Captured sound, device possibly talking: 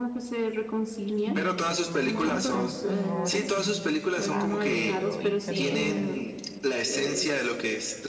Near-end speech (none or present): present